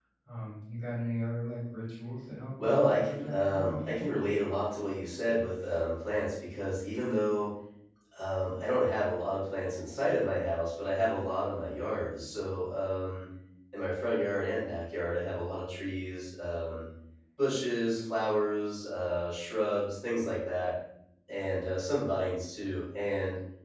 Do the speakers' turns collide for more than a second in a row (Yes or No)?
Yes